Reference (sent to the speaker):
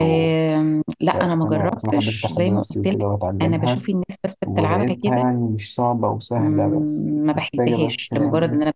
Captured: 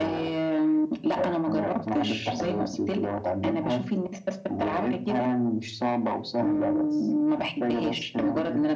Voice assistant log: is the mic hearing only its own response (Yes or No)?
Yes